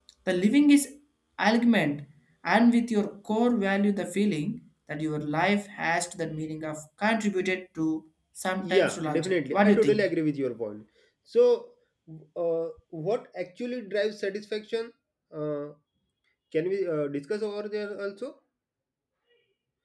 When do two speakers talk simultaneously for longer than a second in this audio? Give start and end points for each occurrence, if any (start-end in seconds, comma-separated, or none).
8.7-10.1